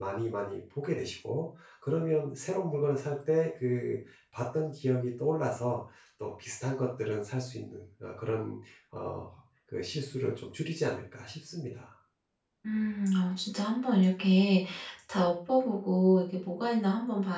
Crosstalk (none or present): none